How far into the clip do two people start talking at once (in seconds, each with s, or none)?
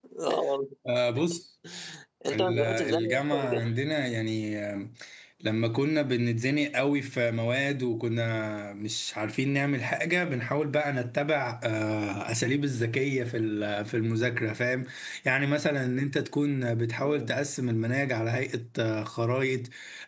2.3 s